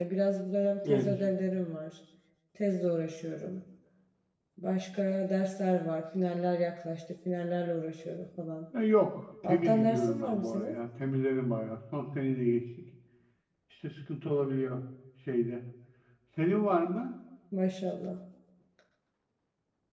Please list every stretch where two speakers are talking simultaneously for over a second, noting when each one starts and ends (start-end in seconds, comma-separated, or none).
9.4-10.8